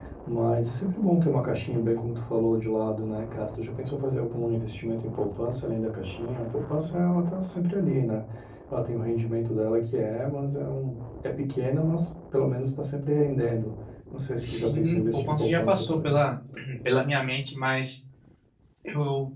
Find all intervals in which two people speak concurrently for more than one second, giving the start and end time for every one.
14.4-16.2

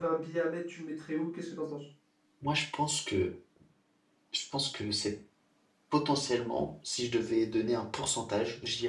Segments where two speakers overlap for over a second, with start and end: none

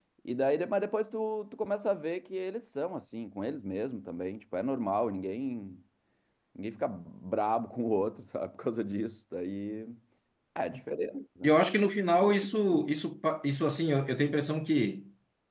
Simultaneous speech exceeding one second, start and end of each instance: none

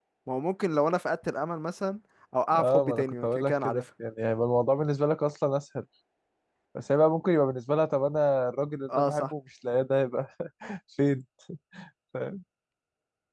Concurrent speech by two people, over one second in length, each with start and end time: 2.6-3.8

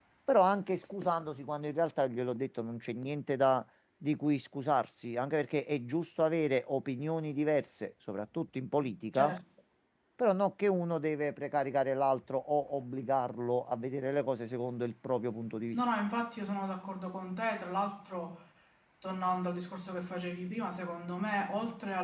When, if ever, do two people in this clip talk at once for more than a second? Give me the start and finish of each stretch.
none

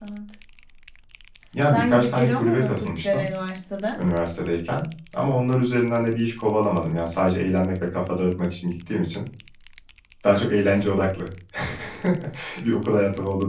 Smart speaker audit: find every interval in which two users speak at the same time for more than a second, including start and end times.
1.7-3.3

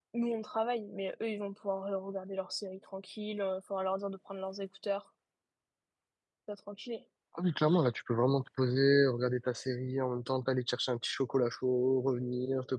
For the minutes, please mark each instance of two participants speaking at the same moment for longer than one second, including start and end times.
none

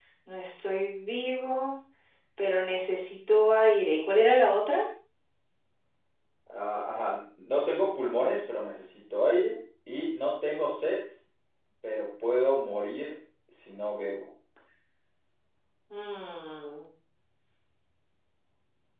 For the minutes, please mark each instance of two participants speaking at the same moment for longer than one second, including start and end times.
none

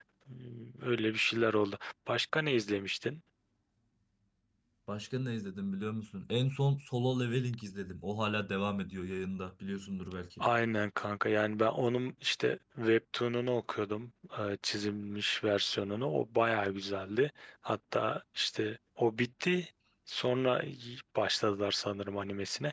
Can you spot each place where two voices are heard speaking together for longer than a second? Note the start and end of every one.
none

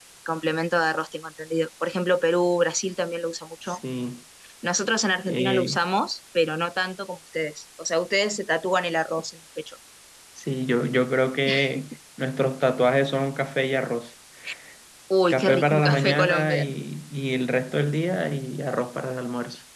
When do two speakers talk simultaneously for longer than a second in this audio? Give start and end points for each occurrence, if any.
15.3-16.7

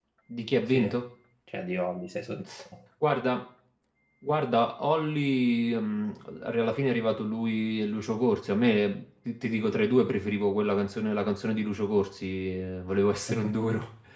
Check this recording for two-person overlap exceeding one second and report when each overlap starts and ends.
none

